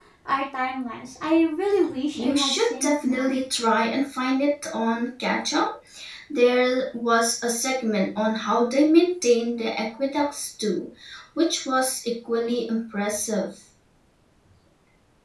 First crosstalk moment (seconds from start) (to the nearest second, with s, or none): 2 s